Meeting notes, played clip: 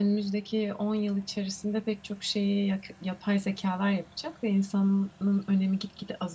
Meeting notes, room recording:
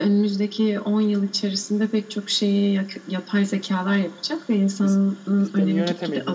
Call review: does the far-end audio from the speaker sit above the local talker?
Yes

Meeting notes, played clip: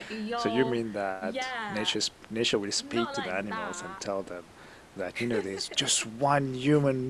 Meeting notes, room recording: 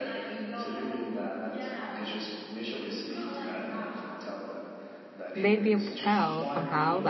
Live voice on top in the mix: Yes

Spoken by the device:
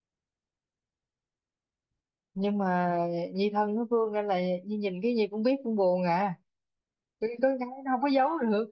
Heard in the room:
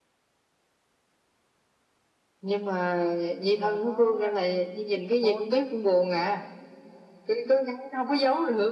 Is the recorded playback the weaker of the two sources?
No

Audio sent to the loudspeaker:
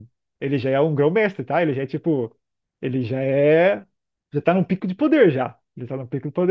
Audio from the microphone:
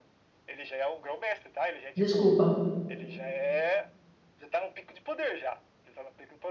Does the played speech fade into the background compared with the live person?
Yes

